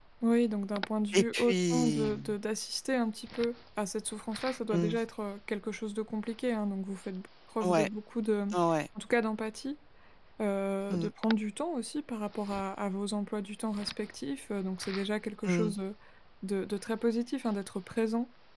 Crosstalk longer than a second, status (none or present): present